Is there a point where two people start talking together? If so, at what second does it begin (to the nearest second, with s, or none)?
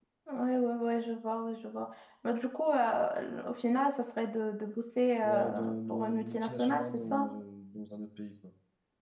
5 s